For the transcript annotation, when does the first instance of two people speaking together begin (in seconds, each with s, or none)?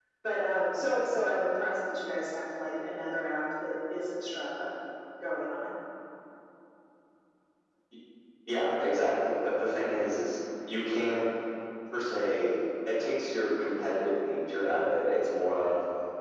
none